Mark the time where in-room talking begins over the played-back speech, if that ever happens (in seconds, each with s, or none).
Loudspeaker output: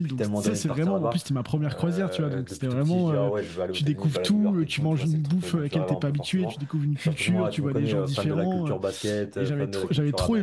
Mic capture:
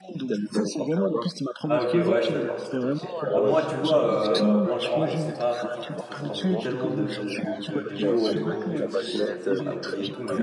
1.6 s